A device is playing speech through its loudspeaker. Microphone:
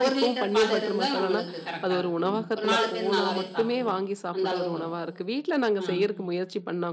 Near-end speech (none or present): present